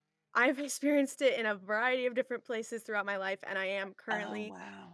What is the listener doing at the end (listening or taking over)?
listening